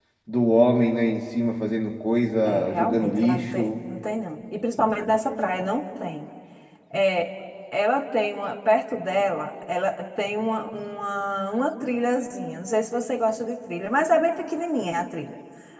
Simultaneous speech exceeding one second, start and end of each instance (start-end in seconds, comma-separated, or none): 2.5-3.7